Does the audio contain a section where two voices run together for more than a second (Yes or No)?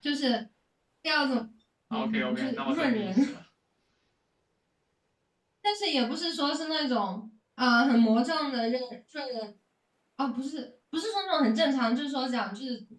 Yes